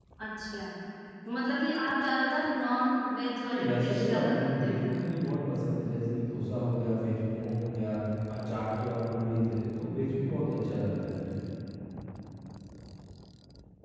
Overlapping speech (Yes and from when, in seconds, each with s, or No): Yes, from 3.5 s